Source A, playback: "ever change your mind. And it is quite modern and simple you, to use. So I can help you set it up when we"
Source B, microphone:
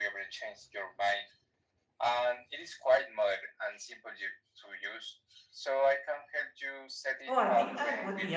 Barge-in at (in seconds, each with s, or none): 7.3 s